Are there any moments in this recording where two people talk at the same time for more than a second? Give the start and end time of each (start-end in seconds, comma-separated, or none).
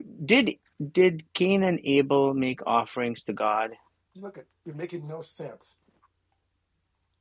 none